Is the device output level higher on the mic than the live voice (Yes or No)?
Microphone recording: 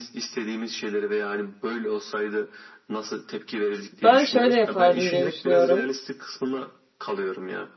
No